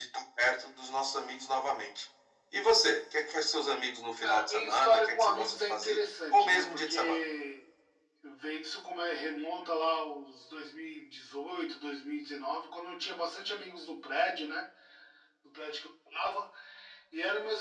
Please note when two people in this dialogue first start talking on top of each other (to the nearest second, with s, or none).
4 s